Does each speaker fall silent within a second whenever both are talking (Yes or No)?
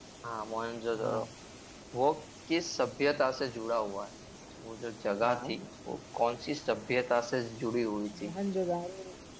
Yes